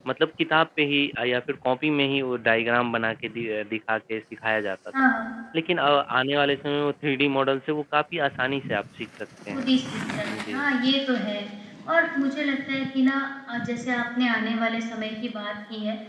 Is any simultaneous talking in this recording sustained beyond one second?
No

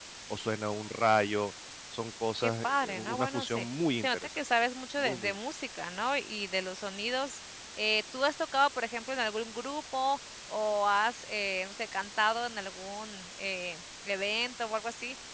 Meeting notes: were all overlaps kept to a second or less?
No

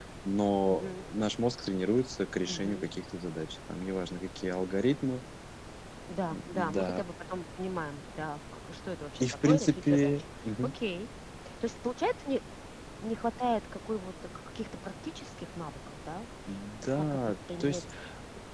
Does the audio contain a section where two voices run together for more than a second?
Yes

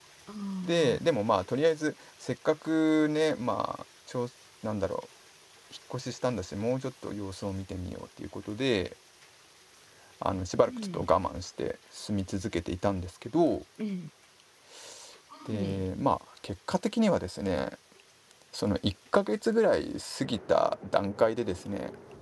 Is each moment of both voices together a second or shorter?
Yes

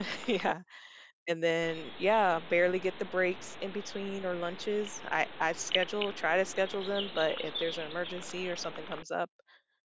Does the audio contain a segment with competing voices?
No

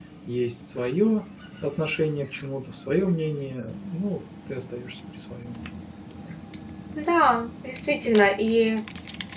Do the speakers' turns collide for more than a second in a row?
No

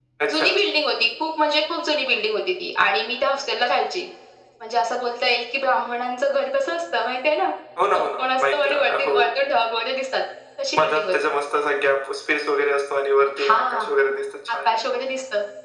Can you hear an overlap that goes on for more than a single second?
Yes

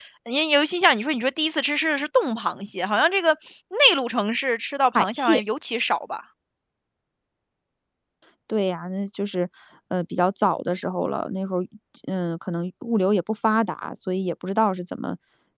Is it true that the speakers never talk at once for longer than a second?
Yes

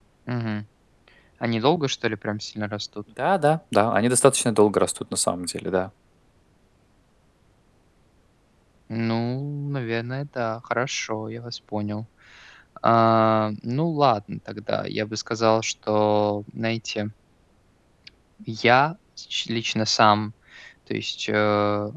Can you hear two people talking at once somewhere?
No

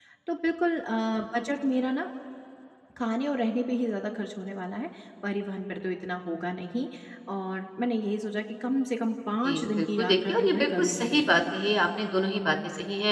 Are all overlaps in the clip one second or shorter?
No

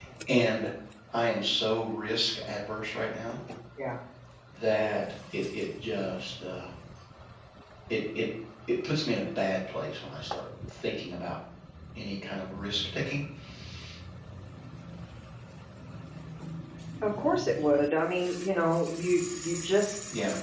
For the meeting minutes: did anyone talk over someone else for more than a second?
No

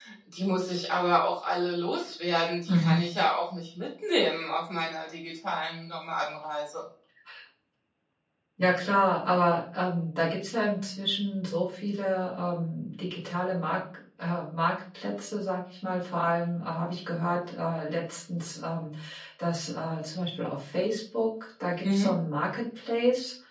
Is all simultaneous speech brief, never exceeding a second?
Yes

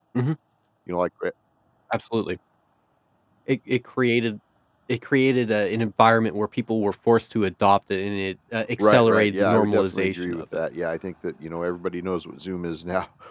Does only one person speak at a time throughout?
No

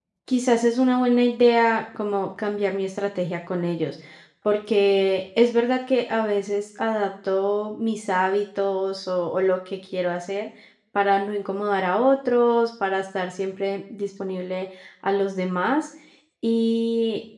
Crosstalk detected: No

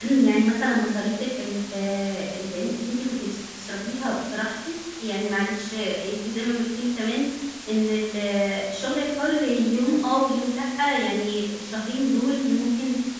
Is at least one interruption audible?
No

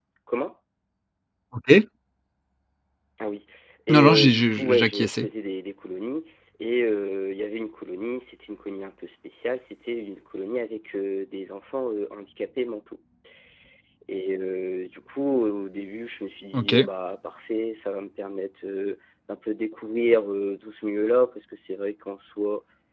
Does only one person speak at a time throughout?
No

